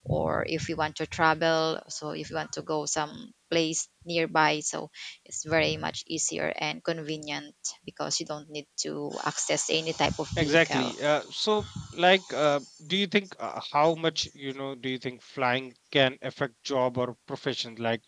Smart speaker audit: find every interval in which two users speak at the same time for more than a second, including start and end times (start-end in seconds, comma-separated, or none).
none